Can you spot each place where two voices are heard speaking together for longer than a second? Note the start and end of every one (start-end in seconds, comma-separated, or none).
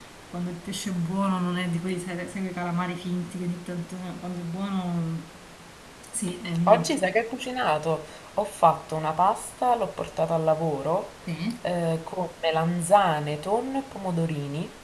none